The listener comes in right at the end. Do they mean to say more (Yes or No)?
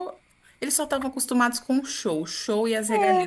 No